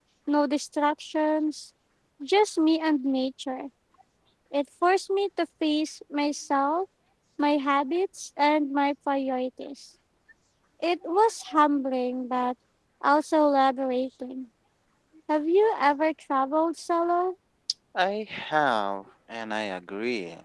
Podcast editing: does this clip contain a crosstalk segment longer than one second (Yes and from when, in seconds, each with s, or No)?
No